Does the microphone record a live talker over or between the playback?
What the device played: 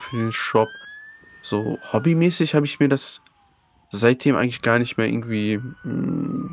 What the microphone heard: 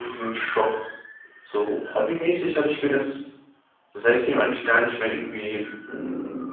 No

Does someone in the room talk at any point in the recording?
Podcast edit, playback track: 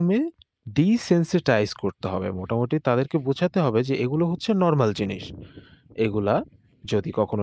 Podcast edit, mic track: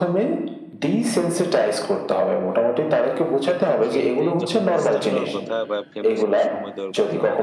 Yes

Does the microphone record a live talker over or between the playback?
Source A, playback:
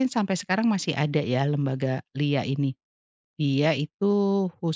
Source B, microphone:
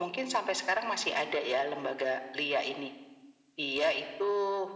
No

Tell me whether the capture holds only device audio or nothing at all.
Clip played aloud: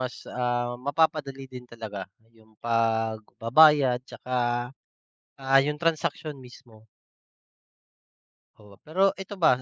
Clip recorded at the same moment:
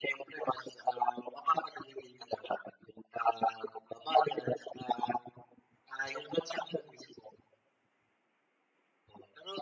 Yes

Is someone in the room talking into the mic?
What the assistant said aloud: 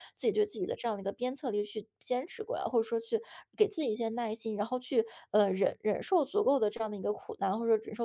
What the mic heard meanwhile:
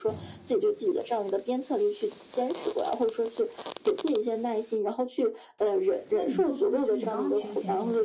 Yes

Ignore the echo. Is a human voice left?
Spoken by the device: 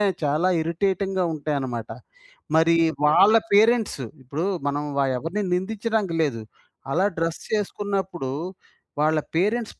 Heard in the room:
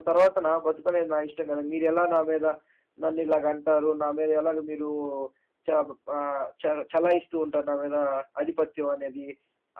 Yes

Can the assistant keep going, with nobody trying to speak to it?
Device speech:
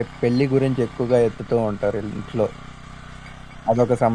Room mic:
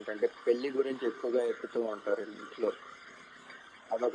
Yes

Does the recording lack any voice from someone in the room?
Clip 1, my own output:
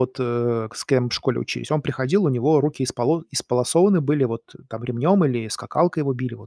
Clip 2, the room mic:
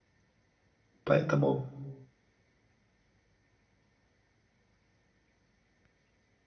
No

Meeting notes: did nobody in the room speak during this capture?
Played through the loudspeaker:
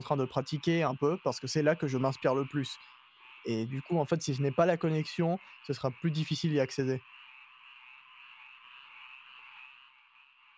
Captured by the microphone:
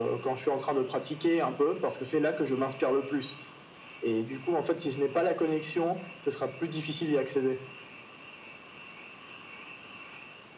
Yes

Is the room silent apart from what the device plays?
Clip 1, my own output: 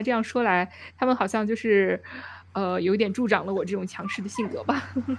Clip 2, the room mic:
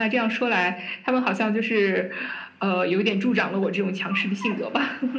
Yes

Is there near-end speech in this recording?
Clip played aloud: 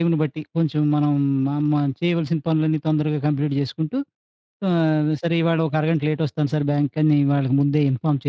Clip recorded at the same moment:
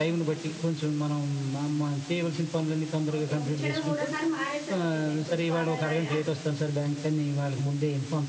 Yes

